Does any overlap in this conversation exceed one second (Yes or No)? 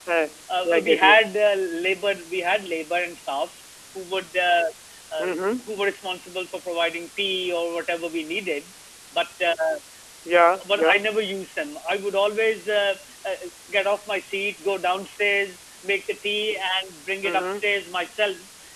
No